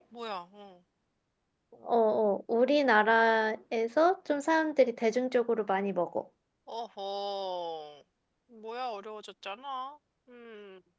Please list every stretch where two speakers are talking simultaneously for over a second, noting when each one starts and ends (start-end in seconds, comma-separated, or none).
none